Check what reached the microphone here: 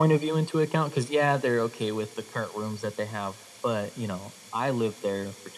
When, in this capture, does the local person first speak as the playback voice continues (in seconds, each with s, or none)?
none